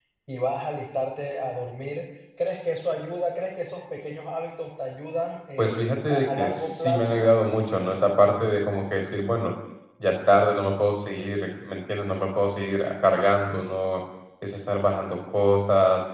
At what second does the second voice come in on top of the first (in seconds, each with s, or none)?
5.6 s